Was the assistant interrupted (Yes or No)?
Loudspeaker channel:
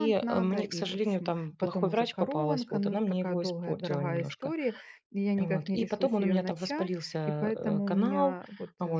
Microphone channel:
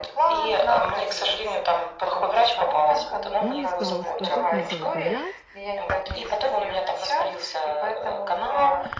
Yes